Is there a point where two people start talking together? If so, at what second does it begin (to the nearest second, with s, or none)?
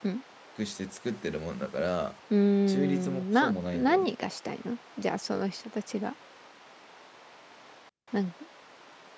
3 s